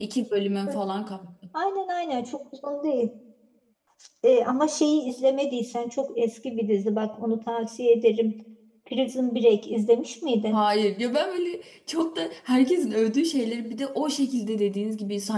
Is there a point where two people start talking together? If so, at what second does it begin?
none

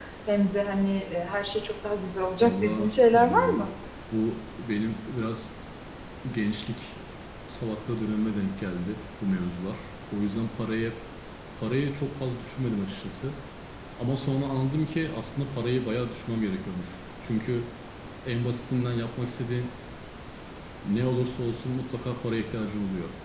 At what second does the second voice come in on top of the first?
2.4 s

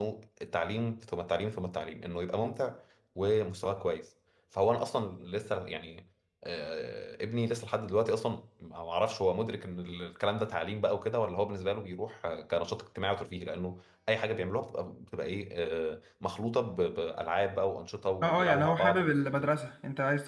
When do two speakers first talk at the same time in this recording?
18.2 s

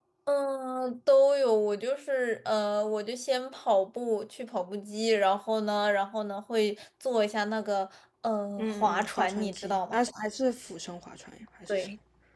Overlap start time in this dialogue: 8.6 s

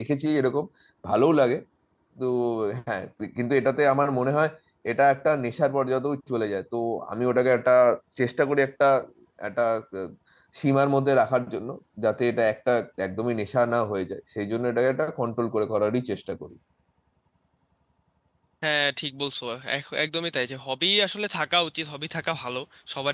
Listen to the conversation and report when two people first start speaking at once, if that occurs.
none

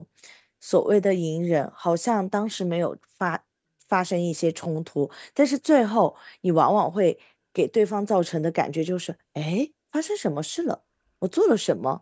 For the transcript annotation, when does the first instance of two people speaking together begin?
none

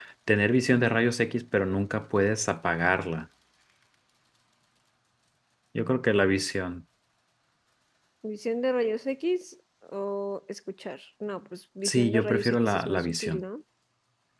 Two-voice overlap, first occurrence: 11.8 s

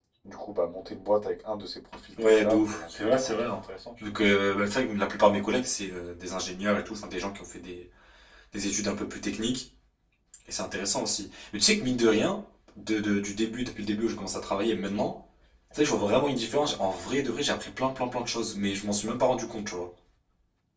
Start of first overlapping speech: 2.2 s

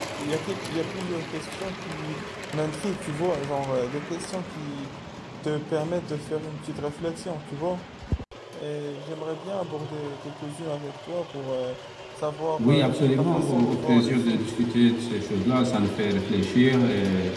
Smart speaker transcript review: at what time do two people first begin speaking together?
12.6 s

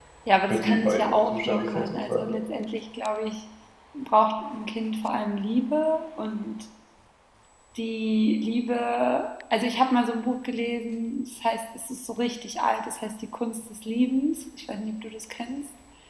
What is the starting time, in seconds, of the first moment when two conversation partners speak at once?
0.5 s

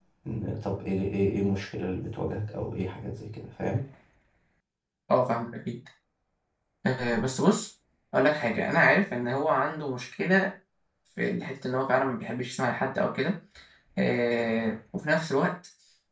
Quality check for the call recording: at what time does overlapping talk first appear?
none

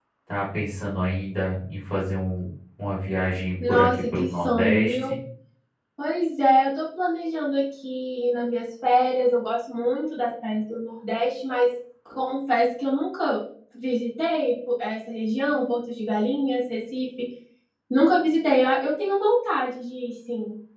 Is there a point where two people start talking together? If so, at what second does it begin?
3.6 s

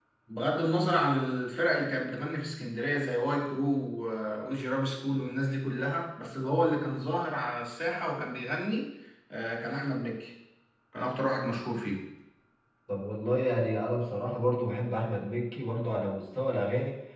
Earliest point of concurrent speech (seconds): none

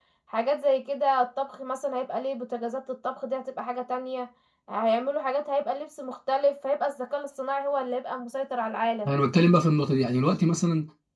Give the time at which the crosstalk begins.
none

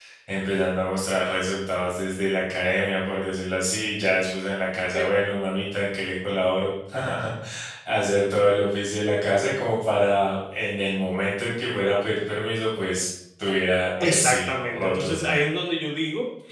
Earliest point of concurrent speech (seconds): 14.0 s

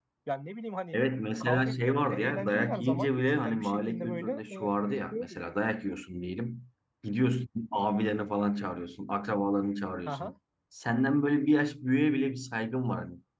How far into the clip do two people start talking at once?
1.4 s

